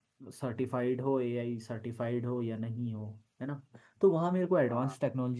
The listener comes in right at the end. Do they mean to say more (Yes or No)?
No